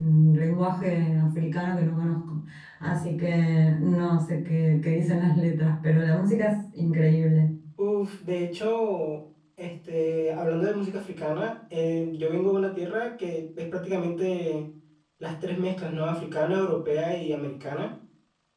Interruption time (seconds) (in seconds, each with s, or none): none